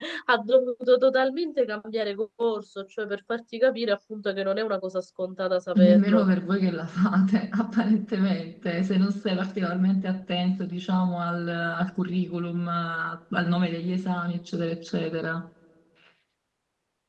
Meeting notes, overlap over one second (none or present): none